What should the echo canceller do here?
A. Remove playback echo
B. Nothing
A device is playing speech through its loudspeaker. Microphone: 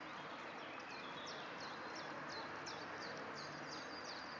B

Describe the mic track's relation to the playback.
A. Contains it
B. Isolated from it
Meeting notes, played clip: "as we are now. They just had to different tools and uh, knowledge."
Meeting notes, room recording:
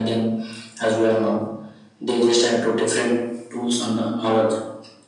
A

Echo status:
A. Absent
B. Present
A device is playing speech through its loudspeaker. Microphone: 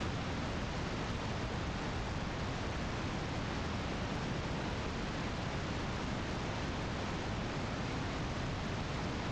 A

